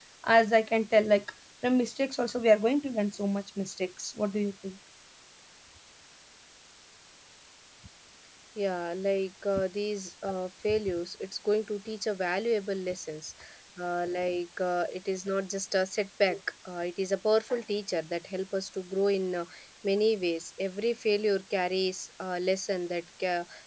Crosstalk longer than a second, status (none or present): none